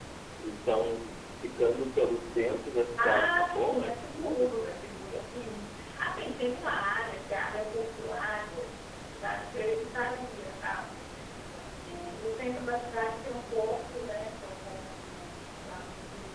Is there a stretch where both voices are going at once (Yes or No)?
Yes